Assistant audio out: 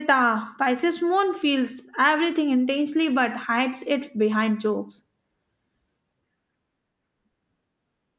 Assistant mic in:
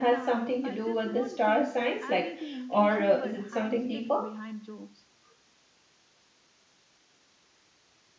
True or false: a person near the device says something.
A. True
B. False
A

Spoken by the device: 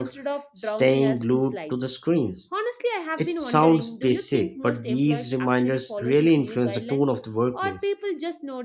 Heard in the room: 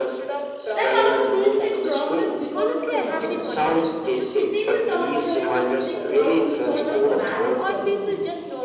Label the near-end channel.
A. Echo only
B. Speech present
B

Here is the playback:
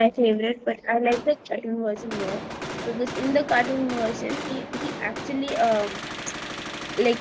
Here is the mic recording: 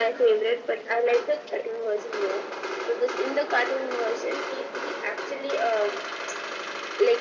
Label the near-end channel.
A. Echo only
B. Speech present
A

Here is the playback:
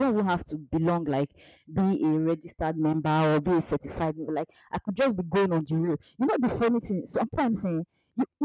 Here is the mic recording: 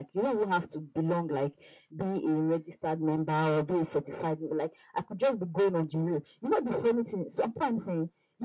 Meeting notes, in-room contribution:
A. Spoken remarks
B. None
B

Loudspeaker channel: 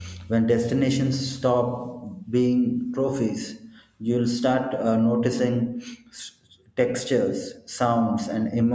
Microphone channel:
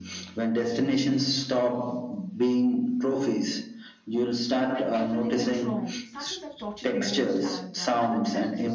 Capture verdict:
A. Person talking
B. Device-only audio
A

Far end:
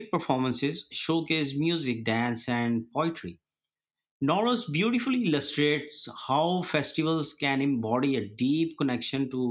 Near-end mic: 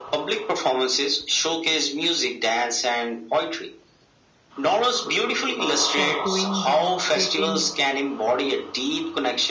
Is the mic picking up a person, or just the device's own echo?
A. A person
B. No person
A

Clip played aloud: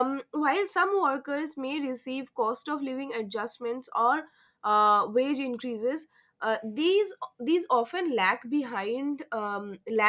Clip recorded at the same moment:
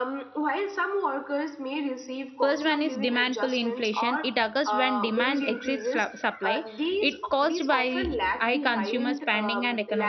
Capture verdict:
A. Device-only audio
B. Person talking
B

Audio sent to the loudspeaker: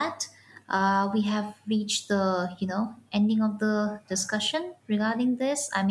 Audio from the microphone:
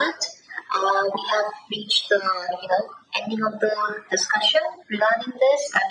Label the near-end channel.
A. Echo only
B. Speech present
A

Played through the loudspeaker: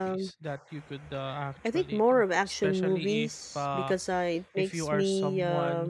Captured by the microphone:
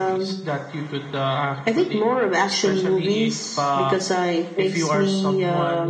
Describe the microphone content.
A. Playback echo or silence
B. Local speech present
A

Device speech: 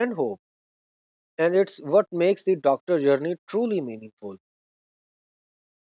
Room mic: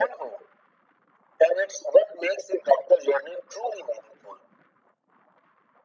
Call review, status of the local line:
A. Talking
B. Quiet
B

